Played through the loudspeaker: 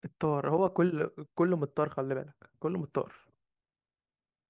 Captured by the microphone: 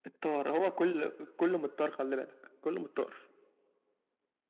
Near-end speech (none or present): none